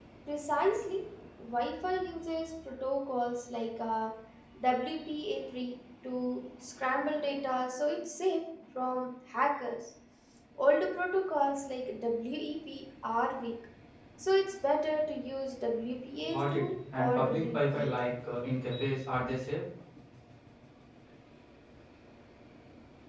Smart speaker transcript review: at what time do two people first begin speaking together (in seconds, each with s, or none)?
16.2 s